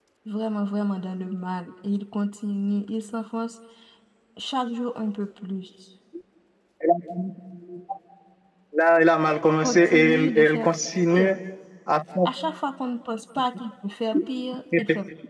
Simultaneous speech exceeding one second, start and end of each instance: 9.6-11.3

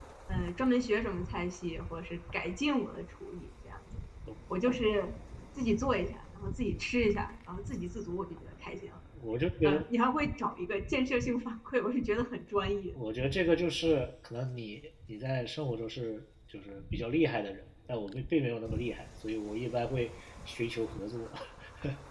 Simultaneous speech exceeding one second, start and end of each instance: none

